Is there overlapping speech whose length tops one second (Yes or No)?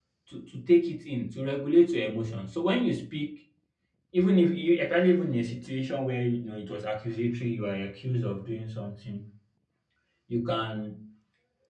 No